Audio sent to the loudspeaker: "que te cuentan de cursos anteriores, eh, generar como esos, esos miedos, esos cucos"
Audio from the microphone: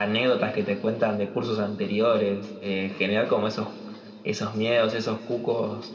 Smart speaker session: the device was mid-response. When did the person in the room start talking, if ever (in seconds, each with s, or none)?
none